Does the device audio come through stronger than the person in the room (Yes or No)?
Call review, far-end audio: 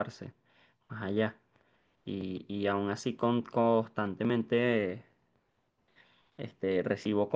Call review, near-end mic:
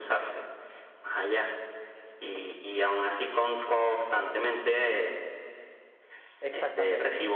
Yes